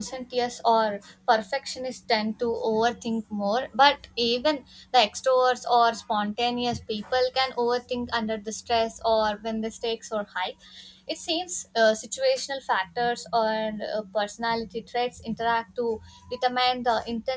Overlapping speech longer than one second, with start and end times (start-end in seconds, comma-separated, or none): none